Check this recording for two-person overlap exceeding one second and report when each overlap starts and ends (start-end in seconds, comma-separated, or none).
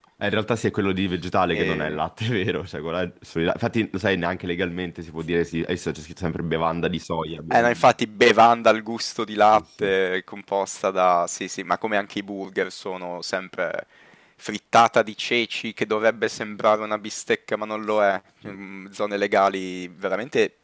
none